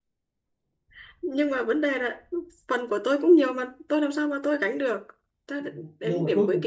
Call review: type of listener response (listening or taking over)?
taking over